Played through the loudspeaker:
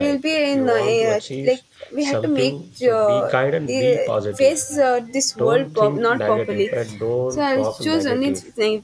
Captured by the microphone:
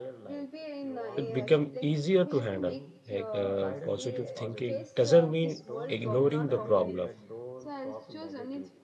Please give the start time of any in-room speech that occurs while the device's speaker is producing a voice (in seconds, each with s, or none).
1.2 s